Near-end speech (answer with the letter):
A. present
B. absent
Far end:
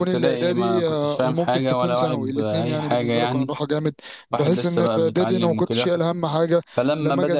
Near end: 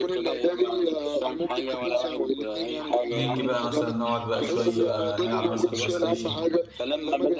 A